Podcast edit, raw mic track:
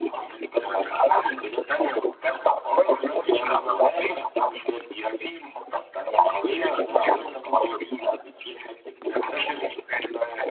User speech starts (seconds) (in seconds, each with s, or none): none